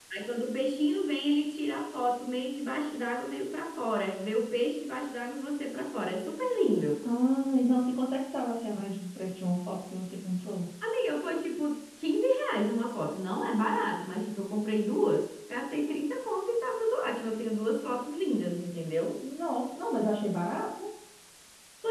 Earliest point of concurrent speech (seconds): none

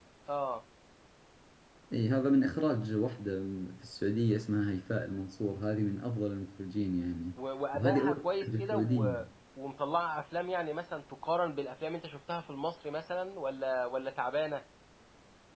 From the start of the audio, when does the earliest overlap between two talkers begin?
8 s

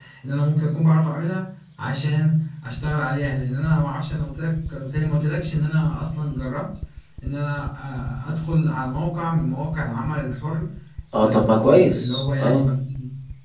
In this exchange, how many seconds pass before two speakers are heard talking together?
11 s

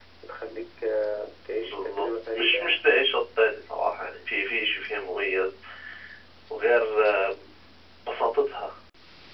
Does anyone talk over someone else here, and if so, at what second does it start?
2 s

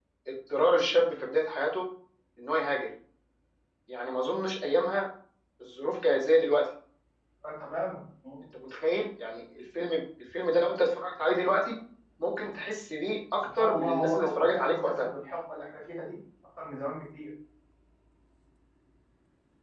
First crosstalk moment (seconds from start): 13 s

